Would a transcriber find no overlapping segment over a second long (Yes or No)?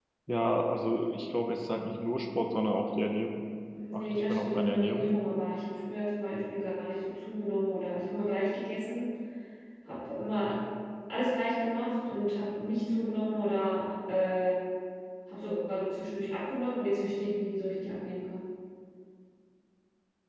No